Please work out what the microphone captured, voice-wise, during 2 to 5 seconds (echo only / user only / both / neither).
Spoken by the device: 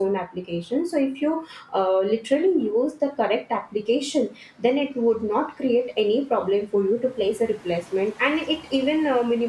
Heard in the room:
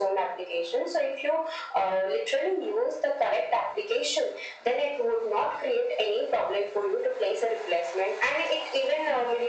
echo only